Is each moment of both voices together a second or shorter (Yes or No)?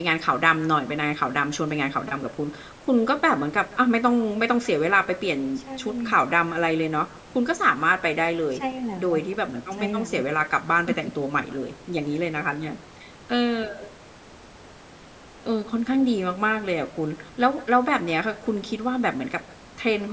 Yes